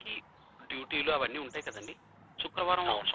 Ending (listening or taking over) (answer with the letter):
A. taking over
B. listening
B